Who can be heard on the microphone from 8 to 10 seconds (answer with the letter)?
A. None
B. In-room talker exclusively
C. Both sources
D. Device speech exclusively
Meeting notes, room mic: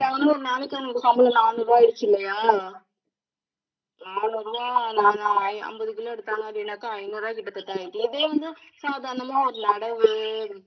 D